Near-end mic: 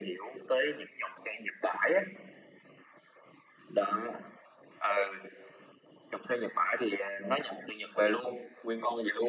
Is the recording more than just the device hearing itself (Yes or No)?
No